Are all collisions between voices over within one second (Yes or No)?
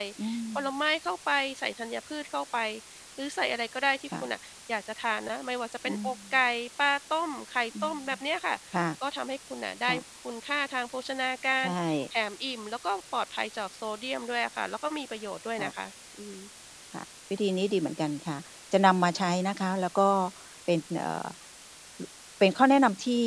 Yes